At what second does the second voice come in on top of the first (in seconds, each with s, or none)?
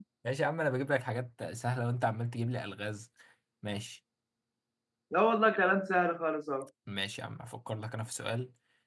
none